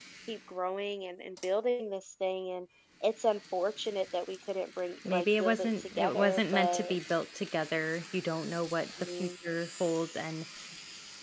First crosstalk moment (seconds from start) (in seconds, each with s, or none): 5.0 s